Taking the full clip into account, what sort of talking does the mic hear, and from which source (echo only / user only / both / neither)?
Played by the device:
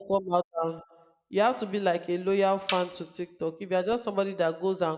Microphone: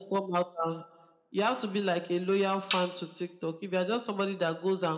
echo only